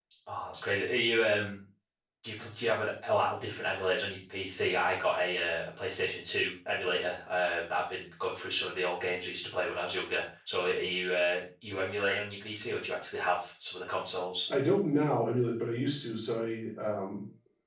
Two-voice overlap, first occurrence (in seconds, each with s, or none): none